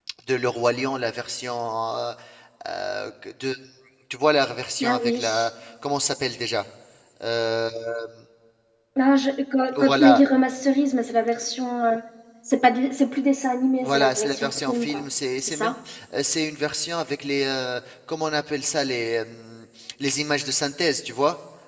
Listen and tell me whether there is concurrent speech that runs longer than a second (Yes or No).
Yes